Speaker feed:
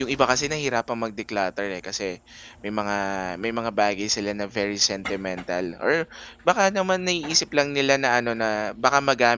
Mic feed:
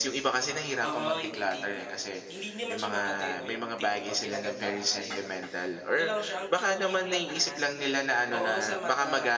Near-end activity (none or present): present